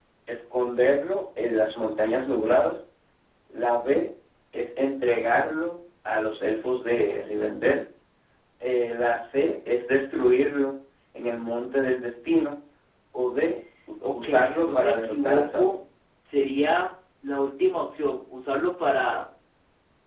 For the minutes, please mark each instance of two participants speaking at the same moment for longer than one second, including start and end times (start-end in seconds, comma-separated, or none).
14.1-15.8